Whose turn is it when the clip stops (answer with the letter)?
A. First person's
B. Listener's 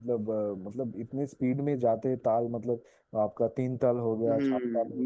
B